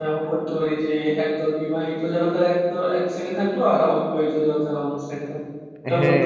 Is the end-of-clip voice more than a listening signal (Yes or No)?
Yes